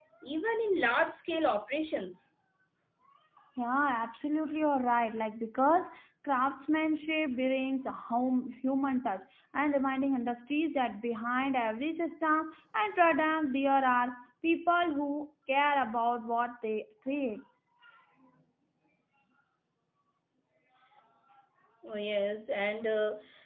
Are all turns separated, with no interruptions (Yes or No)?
Yes